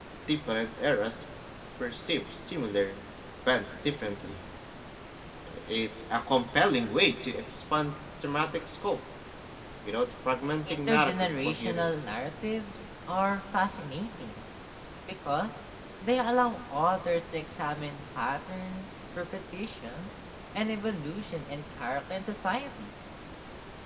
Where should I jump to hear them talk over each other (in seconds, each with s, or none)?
10.6 s